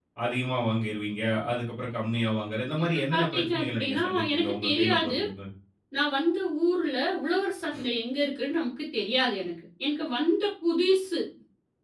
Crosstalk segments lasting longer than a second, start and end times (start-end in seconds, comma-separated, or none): 2.8-5.2